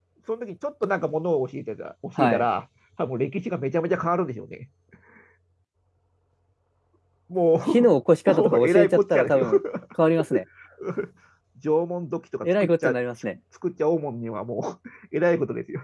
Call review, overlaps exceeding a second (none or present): present